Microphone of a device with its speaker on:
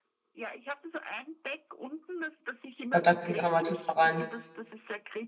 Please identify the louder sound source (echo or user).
user